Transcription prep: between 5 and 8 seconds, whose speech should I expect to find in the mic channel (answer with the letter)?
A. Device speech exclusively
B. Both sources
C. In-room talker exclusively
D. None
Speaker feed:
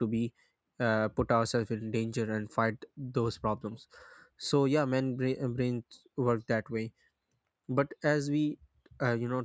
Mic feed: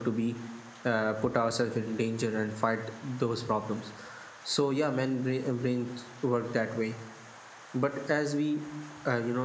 A